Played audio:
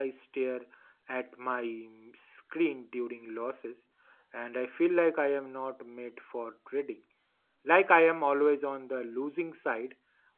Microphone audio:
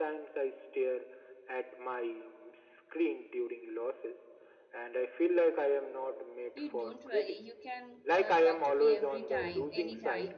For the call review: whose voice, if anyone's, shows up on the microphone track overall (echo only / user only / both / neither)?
both